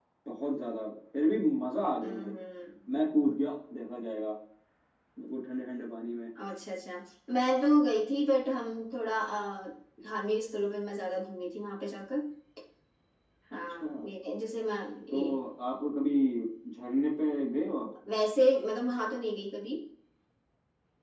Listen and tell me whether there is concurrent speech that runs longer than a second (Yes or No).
No